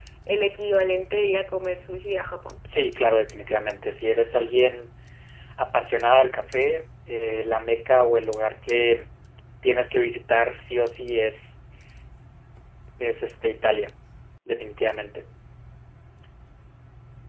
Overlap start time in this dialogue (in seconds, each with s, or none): none